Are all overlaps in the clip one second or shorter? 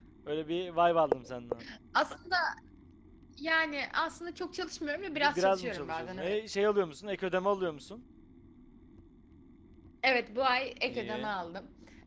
No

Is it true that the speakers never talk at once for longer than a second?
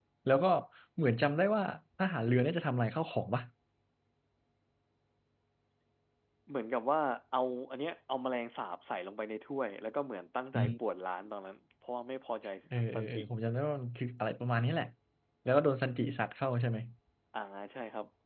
Yes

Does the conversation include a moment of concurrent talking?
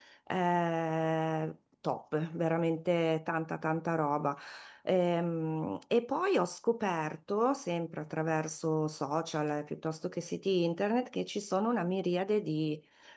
No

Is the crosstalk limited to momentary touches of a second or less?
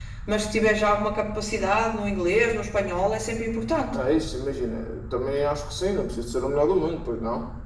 Yes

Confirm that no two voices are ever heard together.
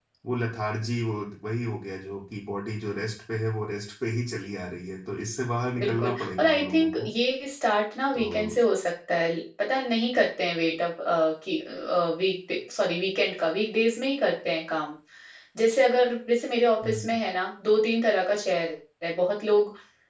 No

